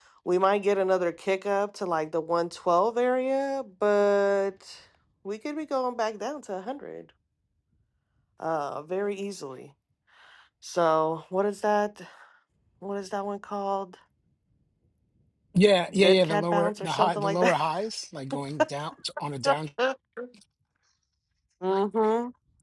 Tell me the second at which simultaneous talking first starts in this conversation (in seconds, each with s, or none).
16.0 s